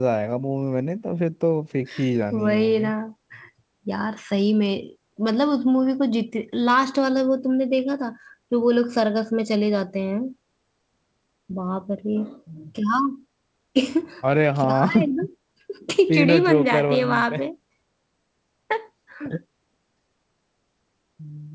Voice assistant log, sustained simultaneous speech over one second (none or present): present